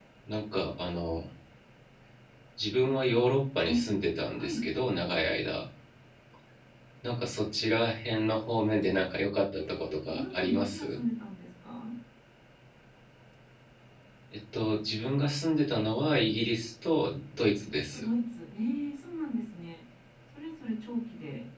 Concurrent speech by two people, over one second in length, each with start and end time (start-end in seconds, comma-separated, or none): 9.6-11.0